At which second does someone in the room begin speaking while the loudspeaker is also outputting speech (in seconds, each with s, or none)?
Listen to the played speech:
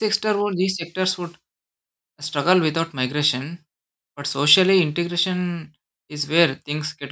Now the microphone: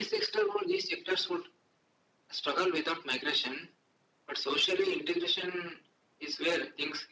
none